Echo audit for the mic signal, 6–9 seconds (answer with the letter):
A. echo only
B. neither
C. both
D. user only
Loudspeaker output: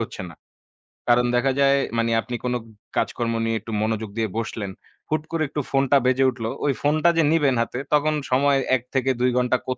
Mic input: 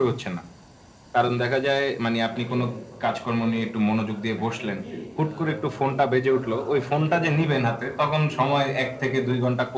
C